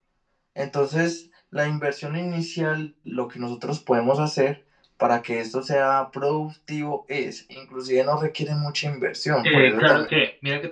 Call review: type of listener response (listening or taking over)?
taking over